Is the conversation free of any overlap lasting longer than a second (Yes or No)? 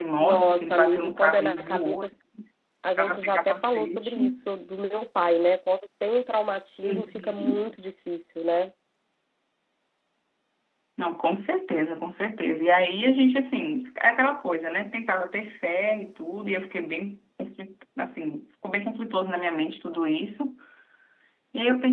No